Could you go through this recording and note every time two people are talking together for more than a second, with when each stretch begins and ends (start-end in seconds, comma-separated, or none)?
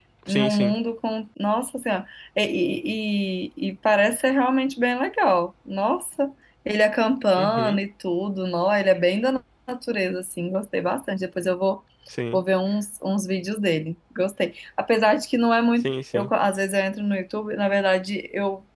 none